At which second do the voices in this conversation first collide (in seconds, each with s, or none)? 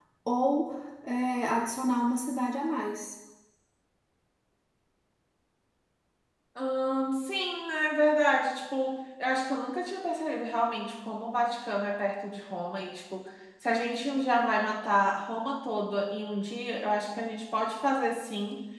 none